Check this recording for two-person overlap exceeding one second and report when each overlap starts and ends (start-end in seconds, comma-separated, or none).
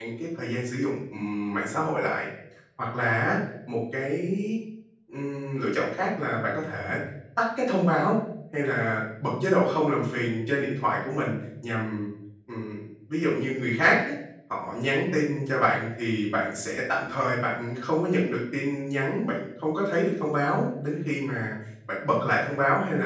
none